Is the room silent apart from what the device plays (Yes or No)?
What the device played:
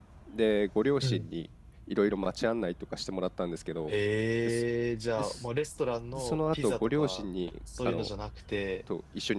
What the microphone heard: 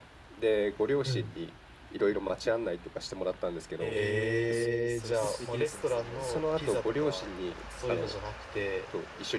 No